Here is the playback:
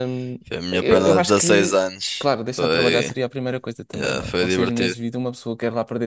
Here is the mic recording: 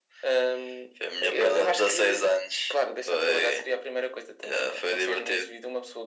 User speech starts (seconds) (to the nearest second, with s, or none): none